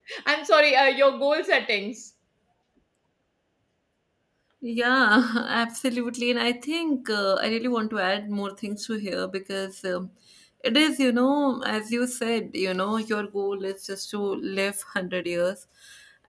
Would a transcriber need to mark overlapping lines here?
No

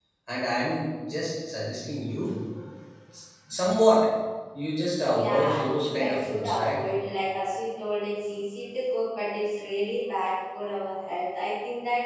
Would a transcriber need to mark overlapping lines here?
Yes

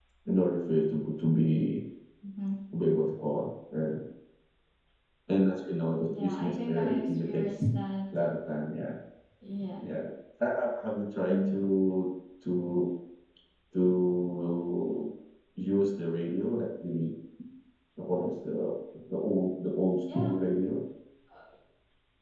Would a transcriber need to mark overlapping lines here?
Yes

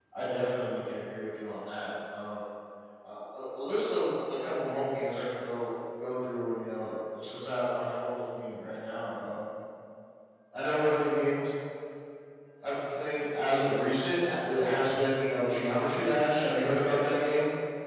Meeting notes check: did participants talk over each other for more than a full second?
No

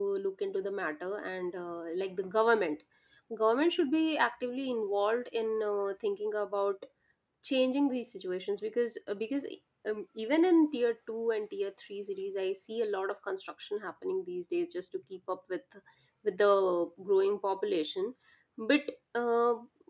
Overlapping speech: No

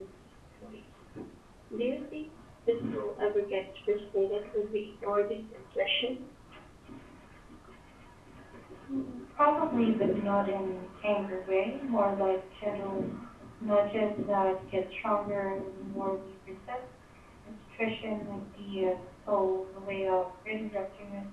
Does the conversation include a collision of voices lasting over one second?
No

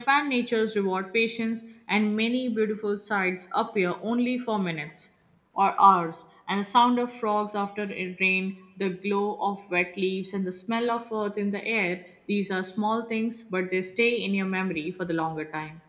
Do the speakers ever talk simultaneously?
No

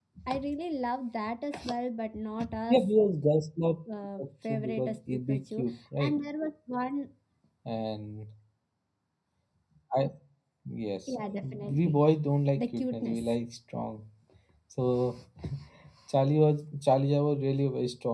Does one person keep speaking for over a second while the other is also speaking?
Yes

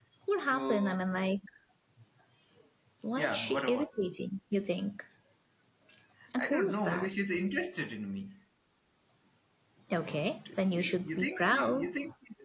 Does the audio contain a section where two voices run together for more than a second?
Yes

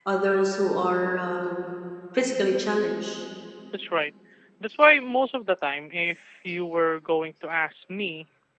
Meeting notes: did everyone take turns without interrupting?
Yes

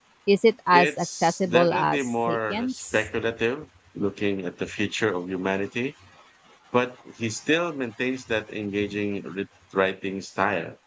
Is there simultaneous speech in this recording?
Yes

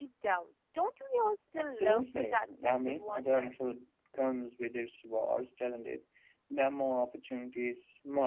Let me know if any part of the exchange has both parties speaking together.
Yes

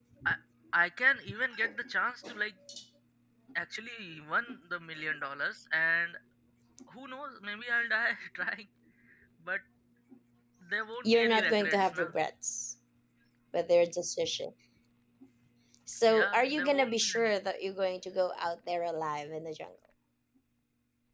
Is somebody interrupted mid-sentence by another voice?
Yes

